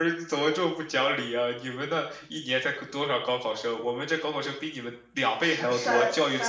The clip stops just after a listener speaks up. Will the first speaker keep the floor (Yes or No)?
No